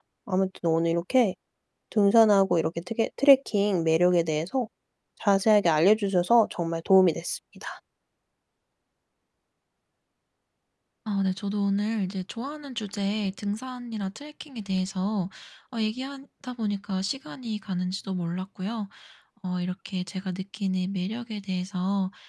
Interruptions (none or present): none